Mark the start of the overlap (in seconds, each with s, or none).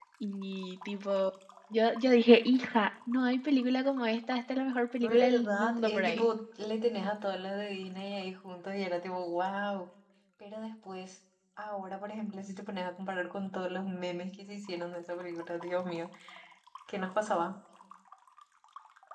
5.0 s